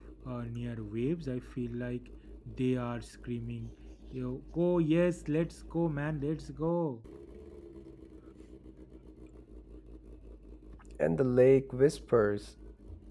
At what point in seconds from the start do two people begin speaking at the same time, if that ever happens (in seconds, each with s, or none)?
none